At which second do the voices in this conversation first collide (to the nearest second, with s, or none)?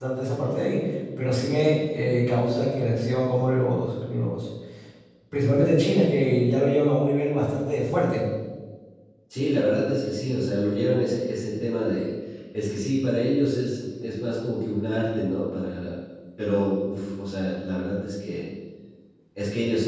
none